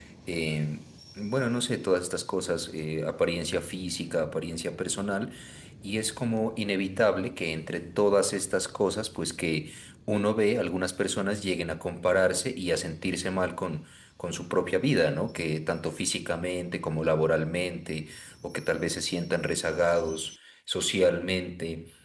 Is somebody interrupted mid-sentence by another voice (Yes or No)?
No